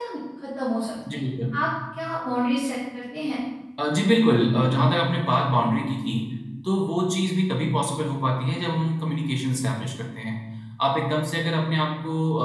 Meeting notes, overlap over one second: none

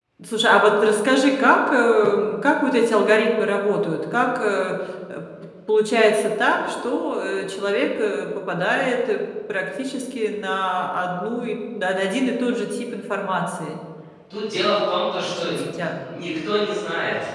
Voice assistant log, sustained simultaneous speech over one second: none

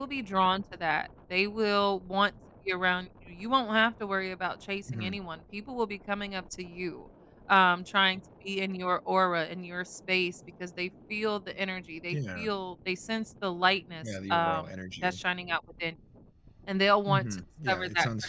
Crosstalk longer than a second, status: present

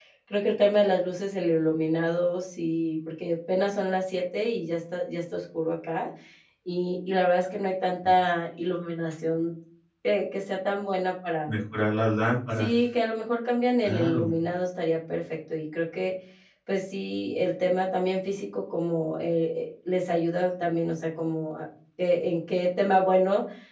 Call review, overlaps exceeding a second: none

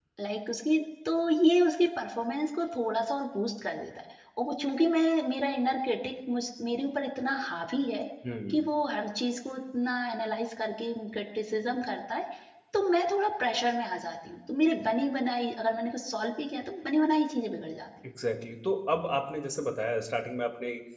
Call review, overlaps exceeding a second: none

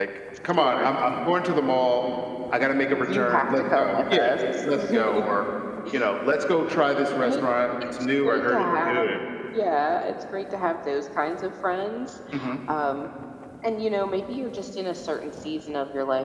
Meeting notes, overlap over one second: present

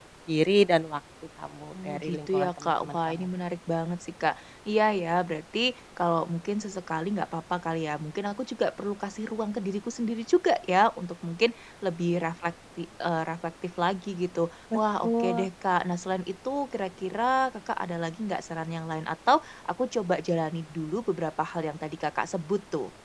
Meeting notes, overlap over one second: present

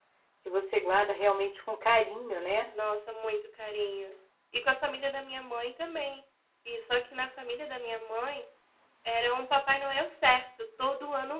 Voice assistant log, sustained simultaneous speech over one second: none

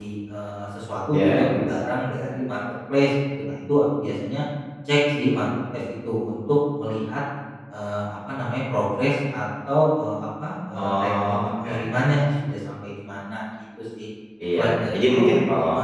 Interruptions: present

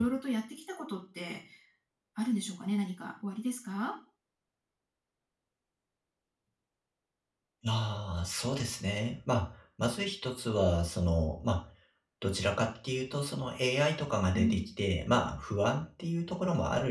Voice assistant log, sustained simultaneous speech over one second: none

